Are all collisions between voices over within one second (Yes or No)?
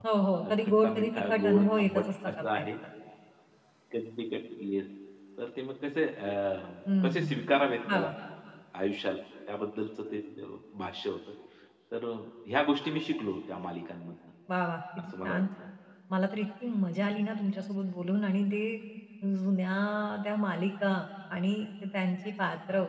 No